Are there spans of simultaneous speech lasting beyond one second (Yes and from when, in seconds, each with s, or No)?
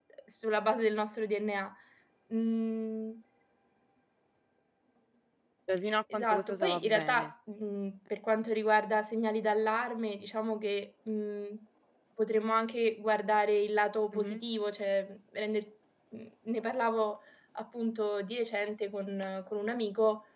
Yes, from 6.1 s